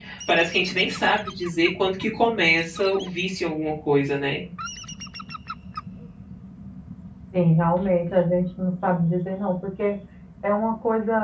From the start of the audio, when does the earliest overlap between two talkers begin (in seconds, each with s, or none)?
none